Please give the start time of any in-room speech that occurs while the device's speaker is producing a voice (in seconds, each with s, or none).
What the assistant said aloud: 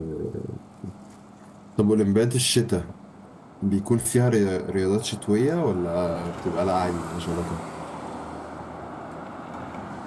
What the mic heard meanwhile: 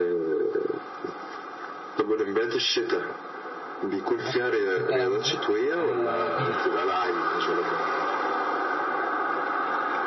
4.2 s